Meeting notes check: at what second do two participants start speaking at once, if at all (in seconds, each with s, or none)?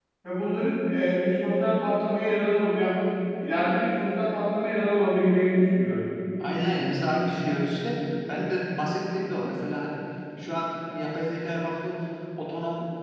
none